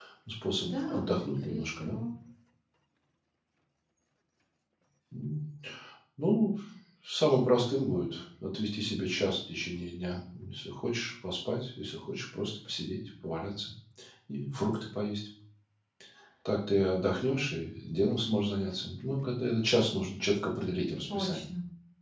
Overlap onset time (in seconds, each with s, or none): 0.6 s